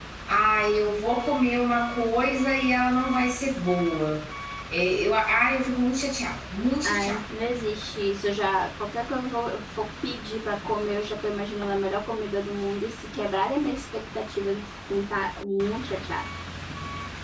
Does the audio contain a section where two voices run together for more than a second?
No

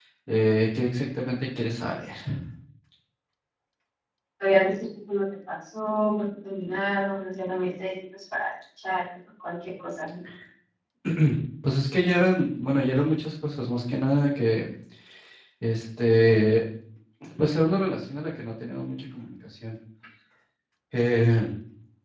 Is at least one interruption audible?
No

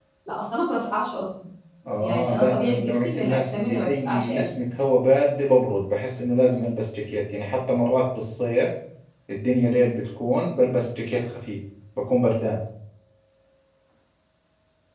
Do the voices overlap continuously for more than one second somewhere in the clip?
Yes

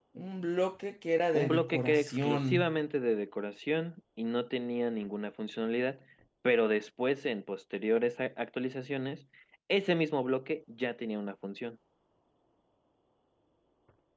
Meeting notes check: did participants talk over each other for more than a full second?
Yes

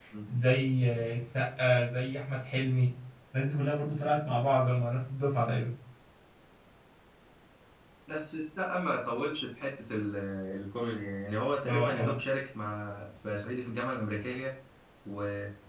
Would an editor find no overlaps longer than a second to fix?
Yes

